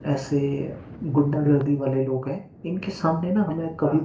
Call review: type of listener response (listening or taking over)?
listening